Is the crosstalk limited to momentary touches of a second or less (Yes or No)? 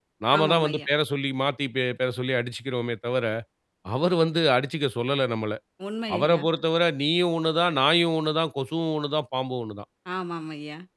Yes